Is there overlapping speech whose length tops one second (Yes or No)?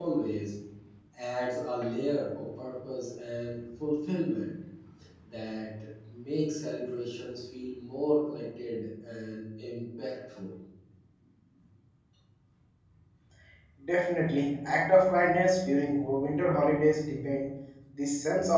No